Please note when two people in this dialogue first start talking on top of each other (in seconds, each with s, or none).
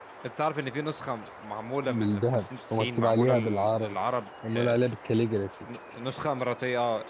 1.9 s